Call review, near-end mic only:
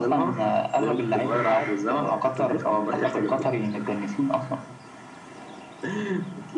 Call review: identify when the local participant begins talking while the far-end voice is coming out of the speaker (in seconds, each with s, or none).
none